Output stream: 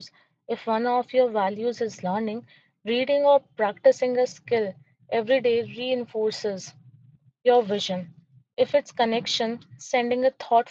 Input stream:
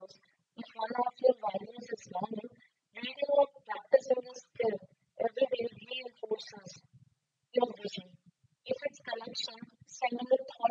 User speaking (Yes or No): No